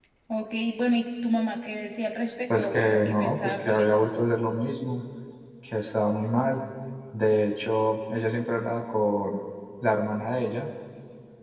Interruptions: present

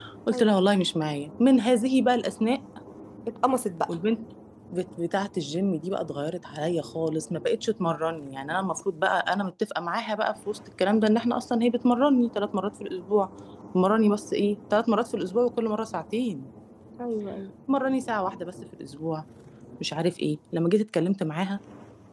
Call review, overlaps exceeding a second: none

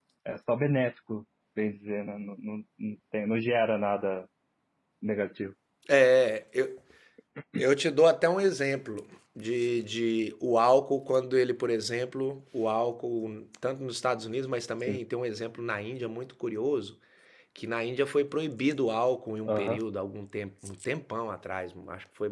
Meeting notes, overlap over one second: none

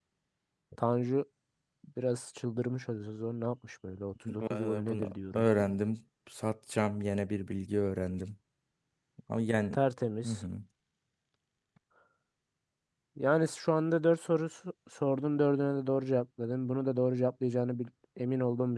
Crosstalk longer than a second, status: present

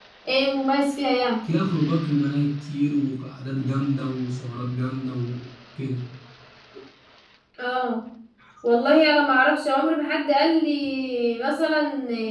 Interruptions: none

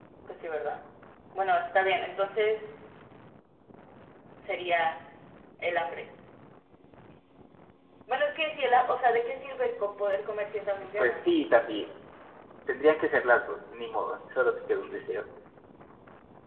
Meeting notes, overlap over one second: none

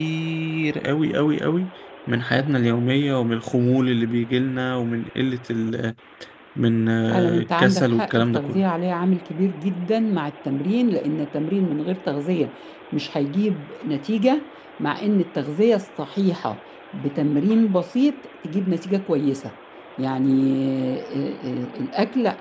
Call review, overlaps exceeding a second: present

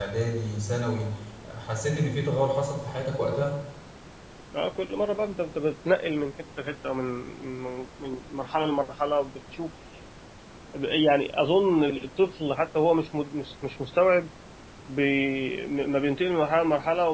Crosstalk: none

